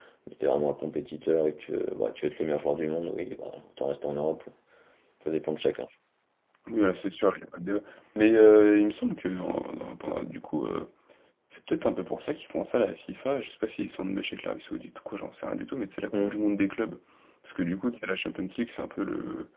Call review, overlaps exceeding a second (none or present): none